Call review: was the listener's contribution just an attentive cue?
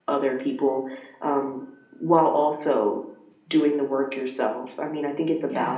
Yes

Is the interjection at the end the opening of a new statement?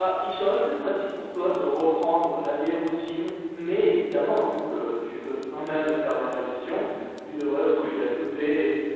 No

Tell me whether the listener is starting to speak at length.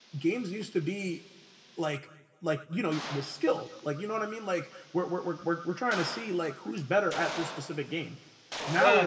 Yes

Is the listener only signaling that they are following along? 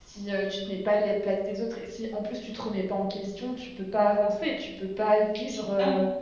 Yes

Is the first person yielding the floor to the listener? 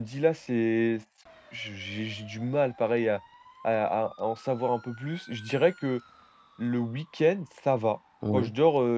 No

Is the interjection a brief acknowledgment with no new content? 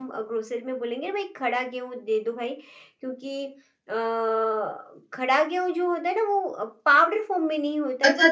No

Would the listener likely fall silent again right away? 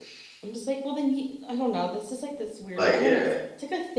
Yes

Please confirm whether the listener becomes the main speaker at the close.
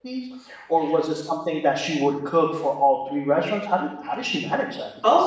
Yes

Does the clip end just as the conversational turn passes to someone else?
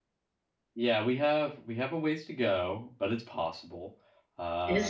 Yes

